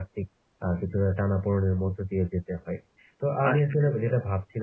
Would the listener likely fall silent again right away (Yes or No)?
Yes